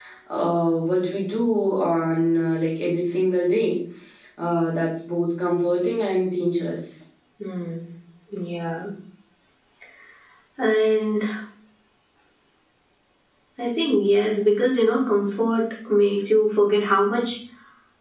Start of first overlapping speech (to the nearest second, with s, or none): none